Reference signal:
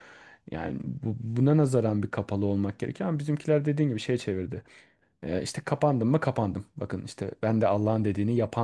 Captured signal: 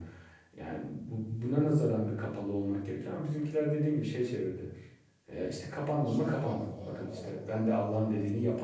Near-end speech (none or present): present